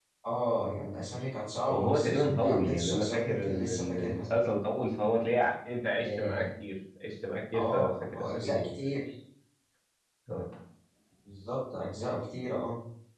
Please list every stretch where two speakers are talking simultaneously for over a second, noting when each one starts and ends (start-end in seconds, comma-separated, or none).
1.7-4.3, 7.5-8.8